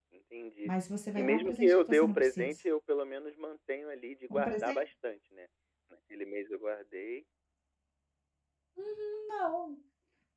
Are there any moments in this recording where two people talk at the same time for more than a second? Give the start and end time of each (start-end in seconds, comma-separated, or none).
1.2-2.6